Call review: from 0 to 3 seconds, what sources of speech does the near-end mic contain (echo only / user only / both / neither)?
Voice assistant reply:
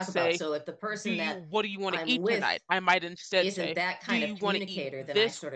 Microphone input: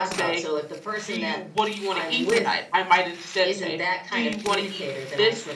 echo only